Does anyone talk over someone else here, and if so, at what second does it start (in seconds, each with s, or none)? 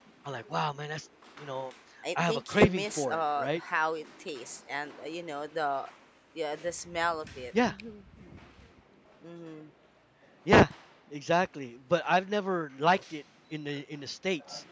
2.1 s